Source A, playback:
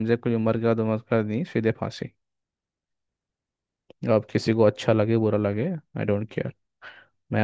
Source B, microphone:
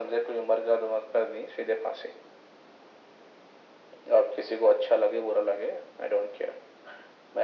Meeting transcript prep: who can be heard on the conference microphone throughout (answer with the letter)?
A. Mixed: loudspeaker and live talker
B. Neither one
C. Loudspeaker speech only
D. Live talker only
C